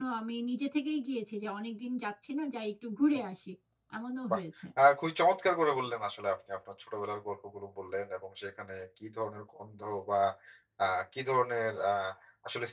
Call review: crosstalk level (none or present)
none